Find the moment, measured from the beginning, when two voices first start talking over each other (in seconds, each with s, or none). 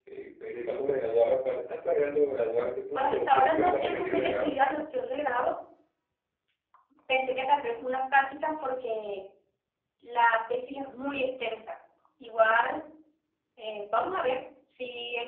3.0 s